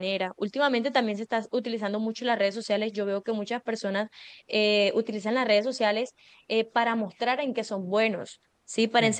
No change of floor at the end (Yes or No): Yes